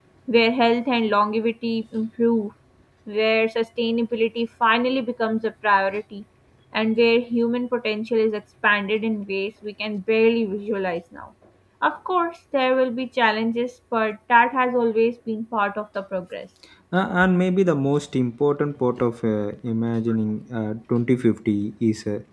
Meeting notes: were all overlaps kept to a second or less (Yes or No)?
Yes